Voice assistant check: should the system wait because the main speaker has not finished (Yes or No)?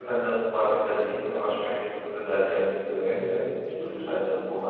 No